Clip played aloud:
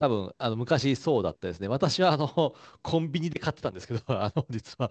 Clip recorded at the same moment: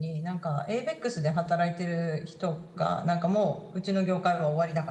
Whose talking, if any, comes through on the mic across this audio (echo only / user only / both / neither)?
user only